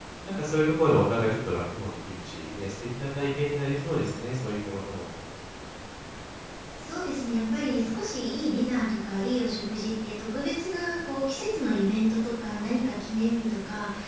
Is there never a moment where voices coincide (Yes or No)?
Yes